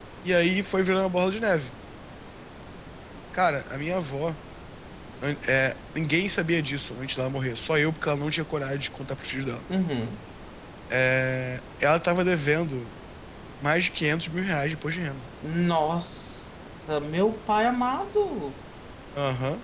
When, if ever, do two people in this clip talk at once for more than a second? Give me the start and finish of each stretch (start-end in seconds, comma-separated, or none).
none